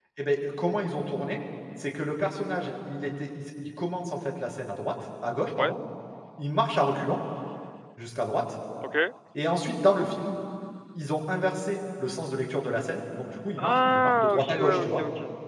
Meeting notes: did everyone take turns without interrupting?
No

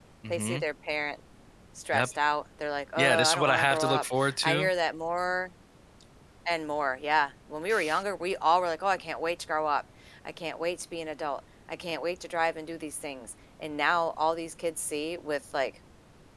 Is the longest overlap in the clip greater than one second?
Yes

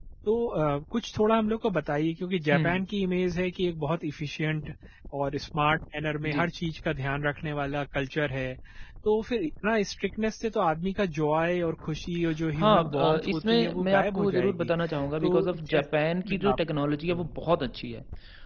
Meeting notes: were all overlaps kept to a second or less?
No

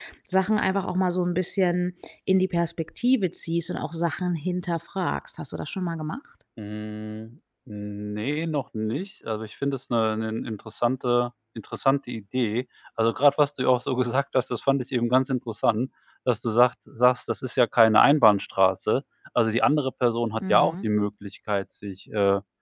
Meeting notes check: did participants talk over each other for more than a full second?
No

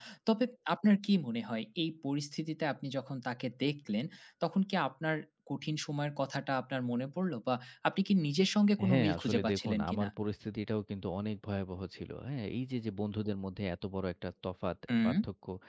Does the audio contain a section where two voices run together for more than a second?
Yes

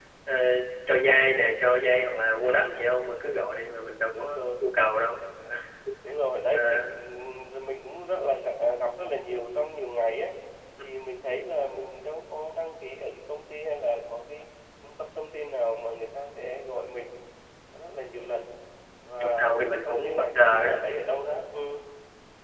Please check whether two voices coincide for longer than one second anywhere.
Yes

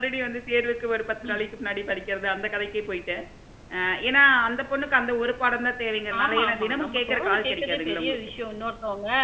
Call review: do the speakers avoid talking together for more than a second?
No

